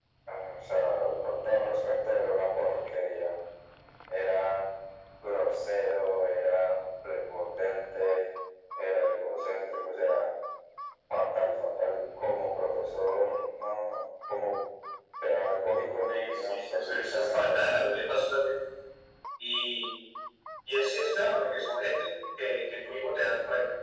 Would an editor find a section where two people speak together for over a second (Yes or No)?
Yes